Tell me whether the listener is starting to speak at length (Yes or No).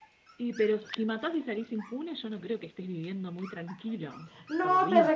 Yes